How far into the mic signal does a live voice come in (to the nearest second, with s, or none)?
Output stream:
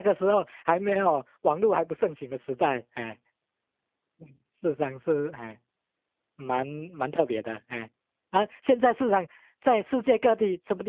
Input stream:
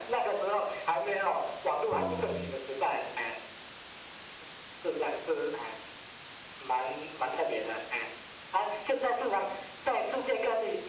2 s